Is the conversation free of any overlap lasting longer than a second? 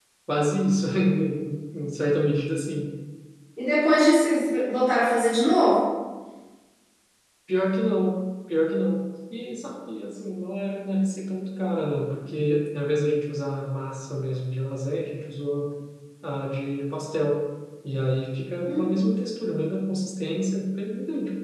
Yes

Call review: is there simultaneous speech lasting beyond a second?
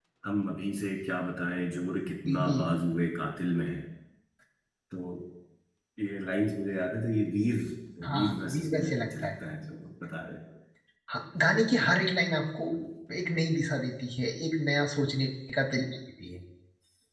Yes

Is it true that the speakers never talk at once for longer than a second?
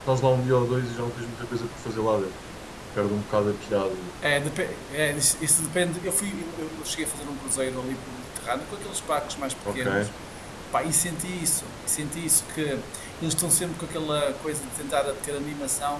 Yes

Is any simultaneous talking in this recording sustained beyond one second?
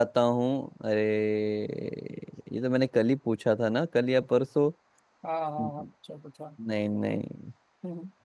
No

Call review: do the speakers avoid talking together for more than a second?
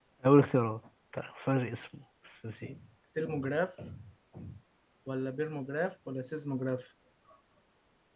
Yes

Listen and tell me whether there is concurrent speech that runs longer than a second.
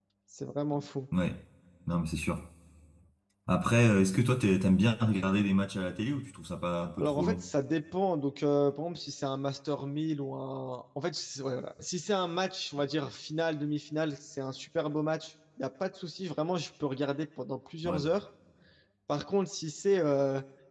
No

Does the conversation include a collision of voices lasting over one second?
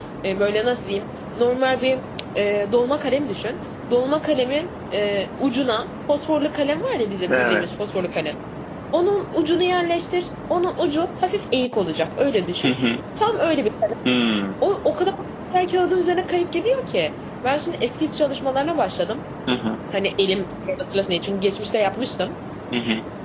No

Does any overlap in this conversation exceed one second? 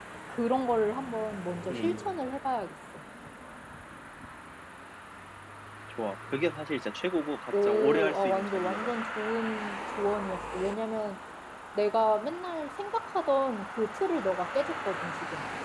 Yes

